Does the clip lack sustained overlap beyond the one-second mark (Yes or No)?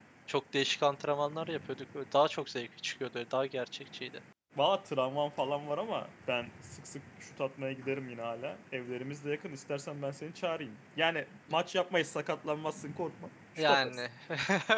Yes